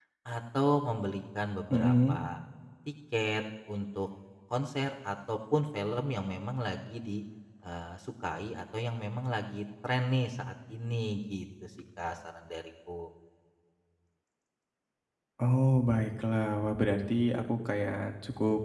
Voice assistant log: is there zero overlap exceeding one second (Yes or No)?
Yes